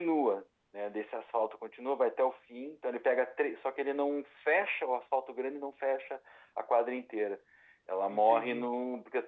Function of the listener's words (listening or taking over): listening